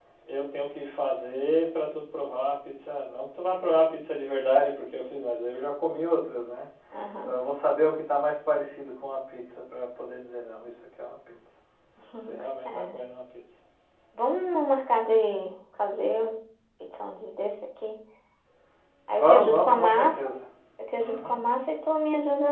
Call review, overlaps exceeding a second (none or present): present